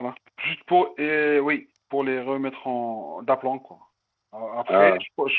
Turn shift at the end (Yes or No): No